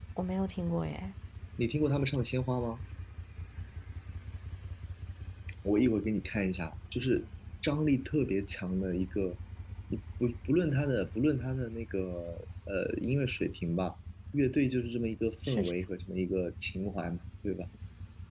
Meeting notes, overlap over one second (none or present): none